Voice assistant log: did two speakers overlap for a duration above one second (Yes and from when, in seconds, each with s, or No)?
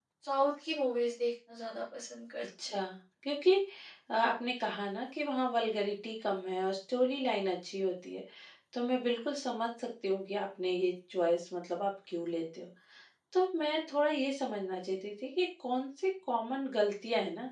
No